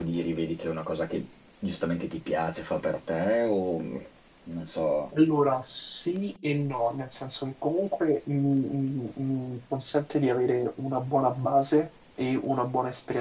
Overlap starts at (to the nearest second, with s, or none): none